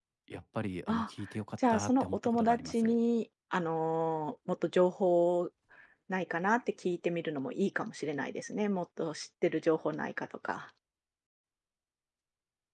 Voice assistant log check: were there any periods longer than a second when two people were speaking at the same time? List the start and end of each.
1.7-2.9

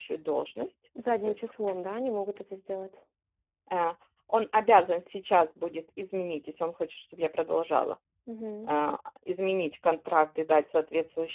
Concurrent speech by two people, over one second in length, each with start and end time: none

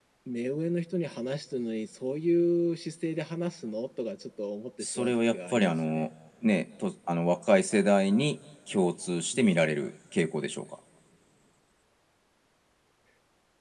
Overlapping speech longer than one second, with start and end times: 4.8-6.0

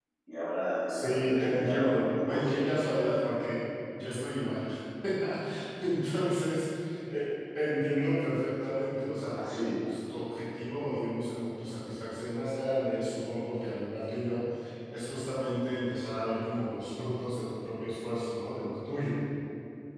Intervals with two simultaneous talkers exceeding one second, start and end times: 0.9-2.6

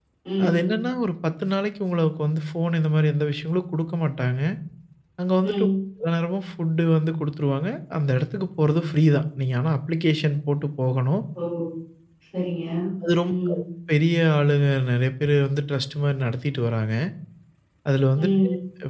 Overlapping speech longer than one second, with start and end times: none

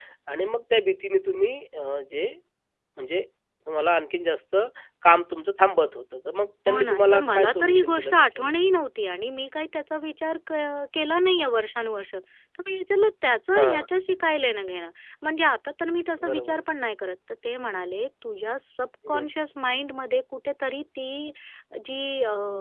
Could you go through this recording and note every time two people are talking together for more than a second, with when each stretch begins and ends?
6.7-8.5

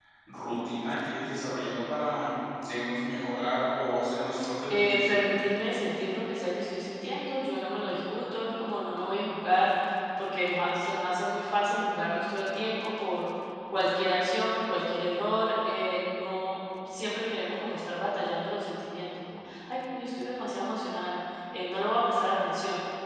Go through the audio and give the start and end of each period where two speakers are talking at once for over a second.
none

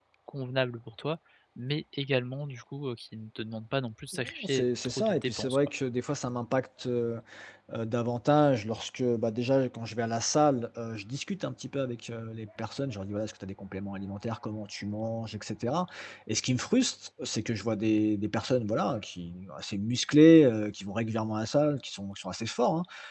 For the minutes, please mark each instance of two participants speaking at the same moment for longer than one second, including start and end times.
4.1-5.6

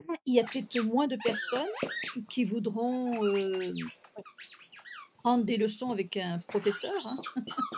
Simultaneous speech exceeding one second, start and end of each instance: none

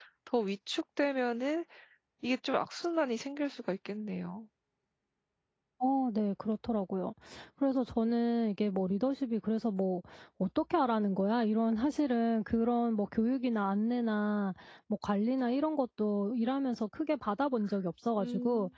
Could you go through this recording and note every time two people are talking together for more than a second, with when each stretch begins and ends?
none

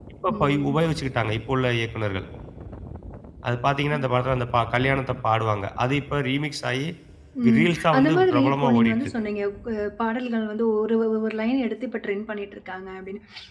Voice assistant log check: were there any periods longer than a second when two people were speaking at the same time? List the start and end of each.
7.6-9.0

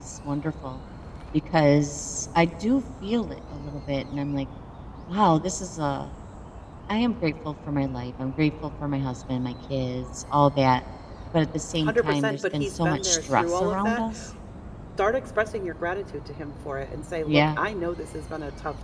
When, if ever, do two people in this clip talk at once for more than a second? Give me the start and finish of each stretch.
11.8-14.0

